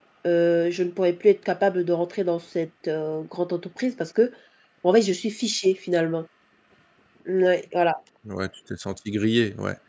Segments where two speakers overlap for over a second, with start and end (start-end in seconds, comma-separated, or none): none